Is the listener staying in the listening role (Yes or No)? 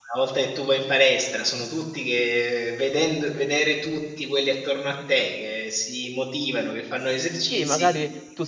No